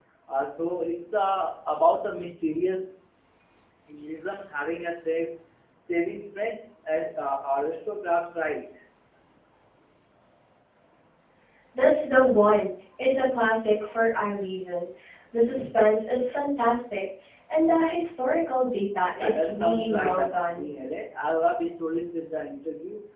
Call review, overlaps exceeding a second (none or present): present